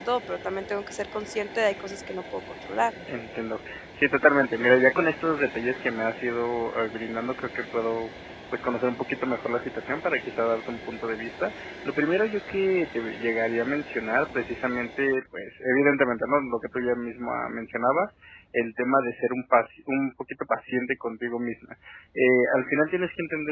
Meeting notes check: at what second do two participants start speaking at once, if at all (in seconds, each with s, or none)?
none